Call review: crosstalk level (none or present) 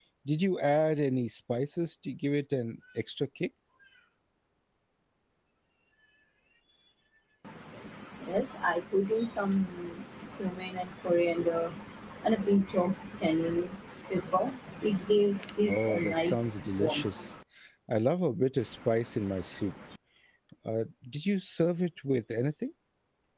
present